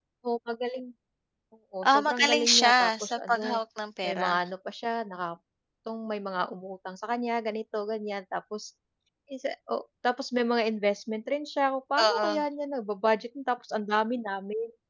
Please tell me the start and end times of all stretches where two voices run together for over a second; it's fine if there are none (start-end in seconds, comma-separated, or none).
1.9-3.6